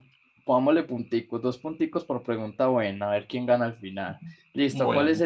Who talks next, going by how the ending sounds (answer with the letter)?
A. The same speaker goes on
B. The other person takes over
A